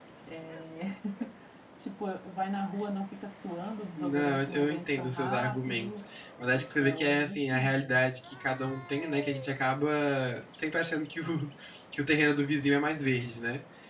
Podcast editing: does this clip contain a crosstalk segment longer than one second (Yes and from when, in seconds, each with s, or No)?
Yes, from 4.0 s